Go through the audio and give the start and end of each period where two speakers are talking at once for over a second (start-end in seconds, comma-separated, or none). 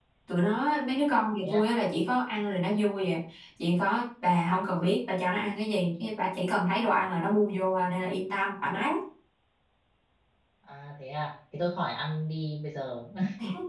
none